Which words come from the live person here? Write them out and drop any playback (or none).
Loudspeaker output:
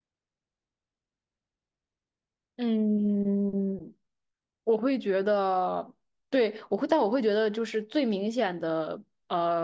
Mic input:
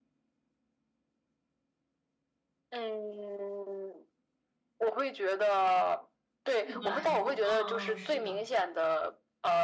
？T 和 F，嗯嗯，是的，